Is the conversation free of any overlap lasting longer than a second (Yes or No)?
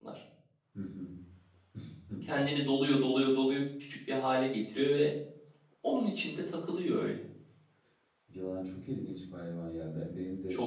Yes